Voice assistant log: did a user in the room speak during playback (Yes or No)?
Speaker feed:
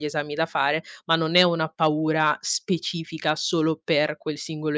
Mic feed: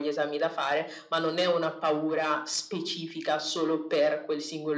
No